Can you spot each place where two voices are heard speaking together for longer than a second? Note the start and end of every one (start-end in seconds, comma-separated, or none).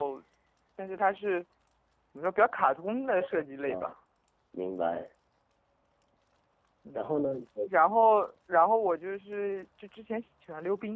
none